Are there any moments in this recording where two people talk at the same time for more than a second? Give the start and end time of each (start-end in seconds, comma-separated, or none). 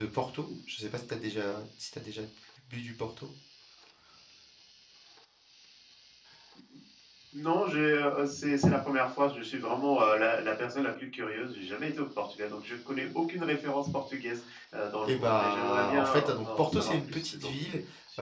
15.0-17.5